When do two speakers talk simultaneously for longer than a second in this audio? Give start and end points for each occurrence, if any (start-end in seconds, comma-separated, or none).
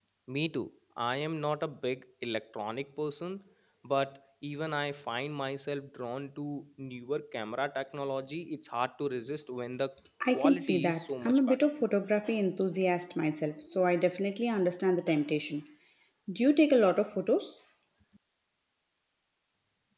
10.3-11.7